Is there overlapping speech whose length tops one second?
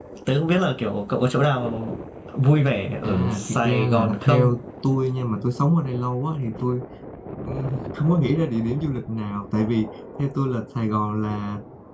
Yes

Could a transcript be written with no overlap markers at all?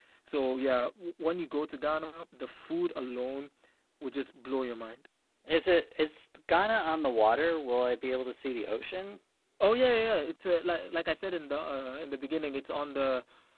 Yes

